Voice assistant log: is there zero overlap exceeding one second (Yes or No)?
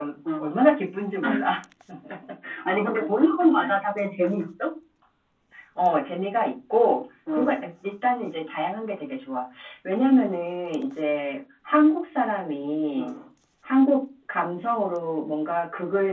Yes